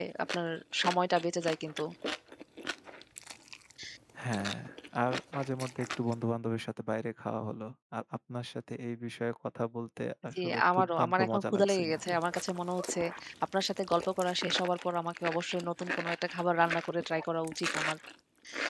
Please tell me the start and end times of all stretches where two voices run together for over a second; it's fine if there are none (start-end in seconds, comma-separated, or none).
10.4-12.1